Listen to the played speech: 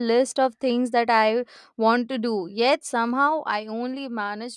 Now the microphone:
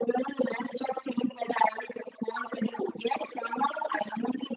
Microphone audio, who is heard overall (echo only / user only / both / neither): echo only